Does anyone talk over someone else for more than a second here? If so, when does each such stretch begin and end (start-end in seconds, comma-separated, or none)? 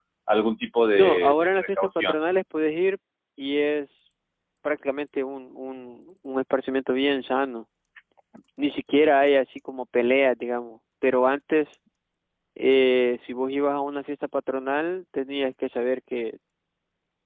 0.9-2.2